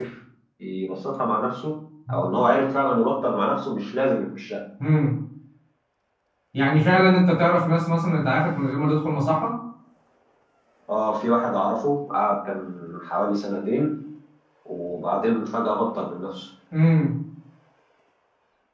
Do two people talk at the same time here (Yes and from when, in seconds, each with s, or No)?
No